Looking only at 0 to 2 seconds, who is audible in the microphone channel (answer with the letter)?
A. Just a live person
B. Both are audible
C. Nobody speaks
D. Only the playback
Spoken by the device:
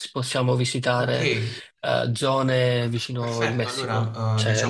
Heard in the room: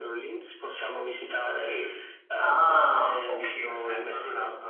D